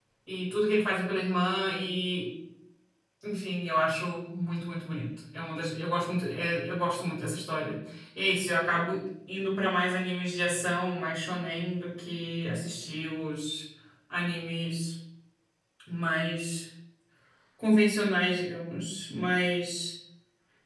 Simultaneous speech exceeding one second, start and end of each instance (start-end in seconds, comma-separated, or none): none